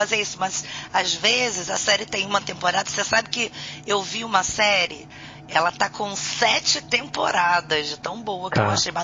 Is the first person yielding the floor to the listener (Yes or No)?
No